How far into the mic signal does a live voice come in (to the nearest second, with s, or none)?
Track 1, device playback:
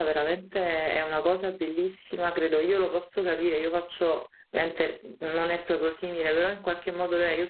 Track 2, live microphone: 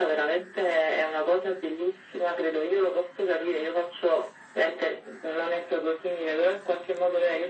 none